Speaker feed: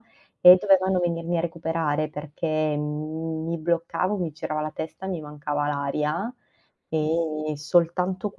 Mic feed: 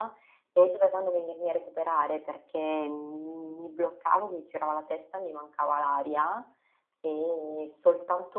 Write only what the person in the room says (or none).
none